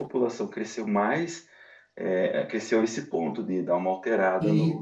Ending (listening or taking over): taking over